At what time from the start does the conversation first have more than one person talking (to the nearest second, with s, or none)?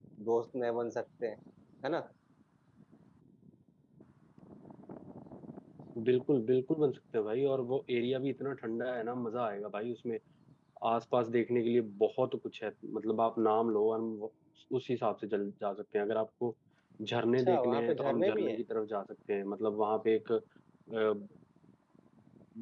17 s